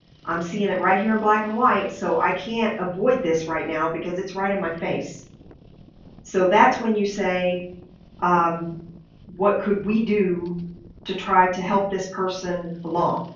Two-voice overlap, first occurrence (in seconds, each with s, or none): none